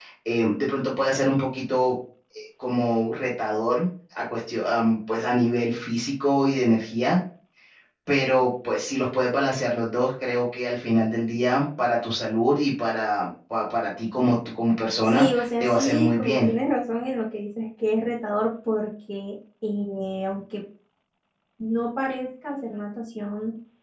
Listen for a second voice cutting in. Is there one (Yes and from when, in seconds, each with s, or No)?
Yes, from 15.0 s